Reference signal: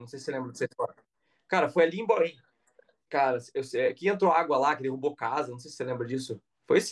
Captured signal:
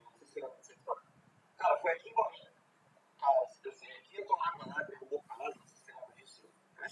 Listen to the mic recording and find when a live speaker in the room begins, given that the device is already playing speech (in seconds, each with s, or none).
none